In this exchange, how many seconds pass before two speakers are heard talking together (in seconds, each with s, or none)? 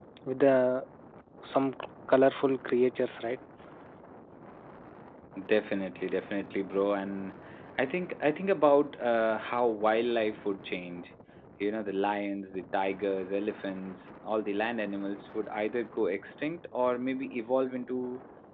none